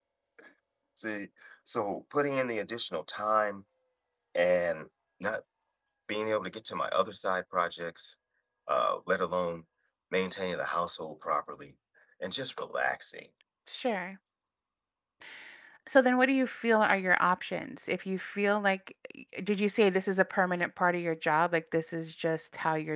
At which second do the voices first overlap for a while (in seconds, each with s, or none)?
none